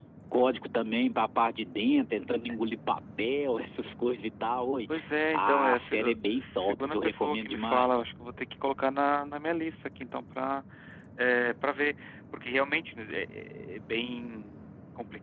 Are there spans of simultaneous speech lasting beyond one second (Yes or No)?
Yes